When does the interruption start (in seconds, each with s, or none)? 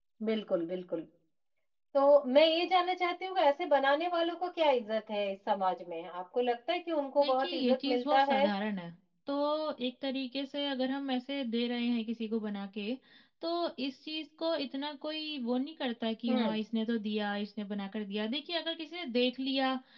7.2 s